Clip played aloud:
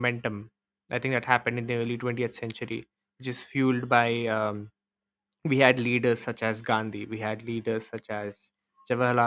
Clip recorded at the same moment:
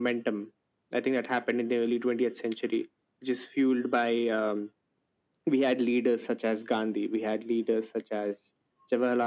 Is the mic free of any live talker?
Yes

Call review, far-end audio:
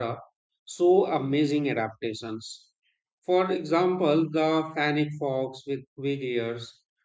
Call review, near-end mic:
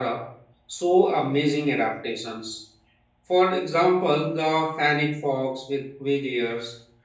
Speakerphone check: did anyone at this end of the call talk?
No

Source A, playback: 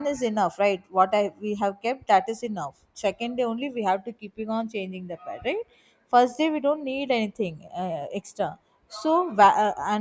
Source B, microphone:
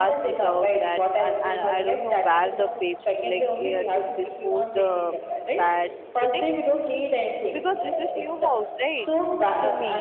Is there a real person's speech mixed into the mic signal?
Yes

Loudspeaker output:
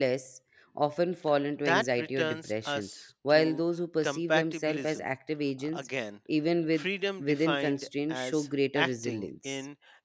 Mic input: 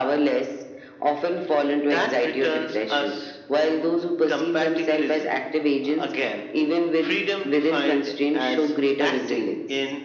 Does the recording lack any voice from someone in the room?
Yes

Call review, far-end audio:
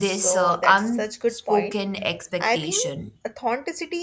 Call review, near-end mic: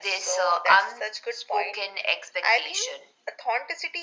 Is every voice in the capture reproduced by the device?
Yes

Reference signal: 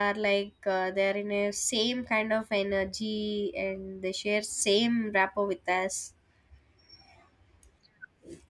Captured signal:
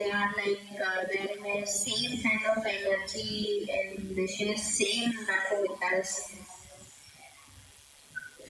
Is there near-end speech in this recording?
No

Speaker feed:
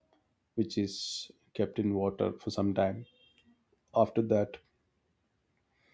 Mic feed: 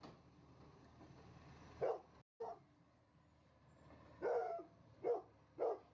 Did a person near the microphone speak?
No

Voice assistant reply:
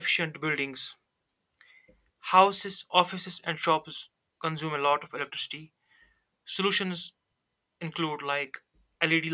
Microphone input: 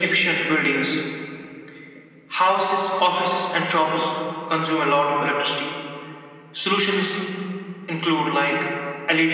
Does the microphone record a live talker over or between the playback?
No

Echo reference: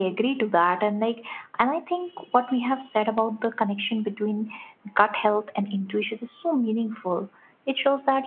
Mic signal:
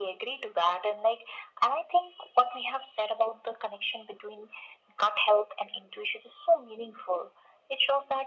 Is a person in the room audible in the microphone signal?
No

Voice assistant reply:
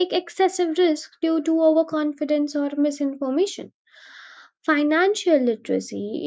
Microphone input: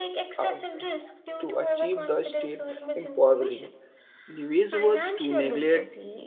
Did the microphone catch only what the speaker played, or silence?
No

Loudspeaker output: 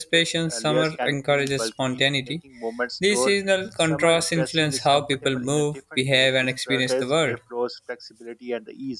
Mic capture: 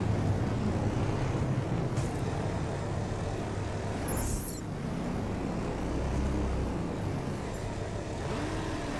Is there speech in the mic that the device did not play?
No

